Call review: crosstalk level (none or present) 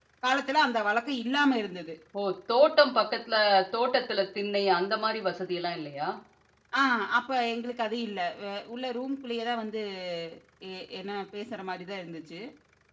none